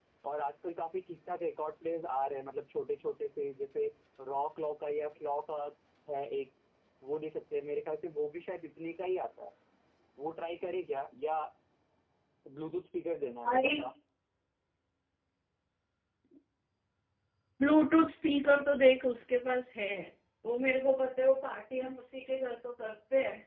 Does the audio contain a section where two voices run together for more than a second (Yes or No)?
No